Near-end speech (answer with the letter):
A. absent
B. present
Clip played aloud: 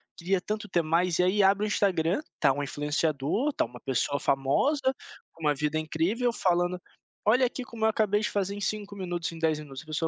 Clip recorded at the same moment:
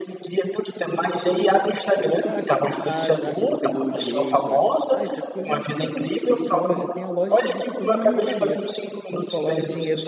B